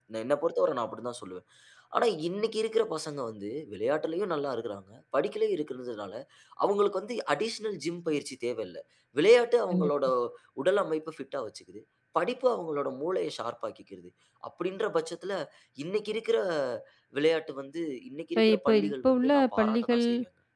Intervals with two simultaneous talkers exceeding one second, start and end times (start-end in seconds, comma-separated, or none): 18.4-20.0